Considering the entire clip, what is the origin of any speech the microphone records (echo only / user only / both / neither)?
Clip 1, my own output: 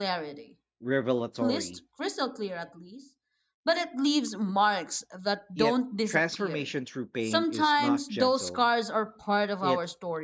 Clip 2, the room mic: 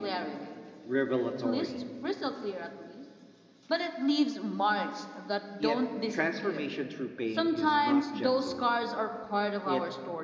echo only